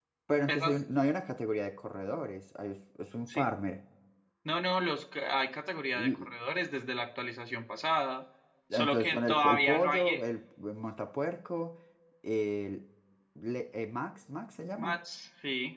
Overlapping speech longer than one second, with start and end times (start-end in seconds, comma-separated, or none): 8.7-10.2